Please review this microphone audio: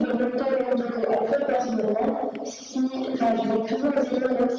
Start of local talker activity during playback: none

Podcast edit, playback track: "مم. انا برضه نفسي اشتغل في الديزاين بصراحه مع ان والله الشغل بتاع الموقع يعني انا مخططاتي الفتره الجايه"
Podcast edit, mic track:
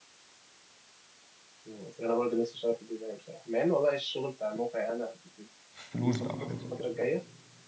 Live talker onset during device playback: 5.7 s

